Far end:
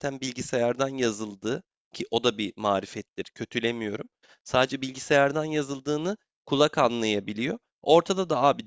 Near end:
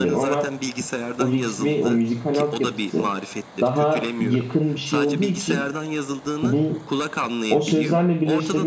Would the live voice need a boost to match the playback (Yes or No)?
No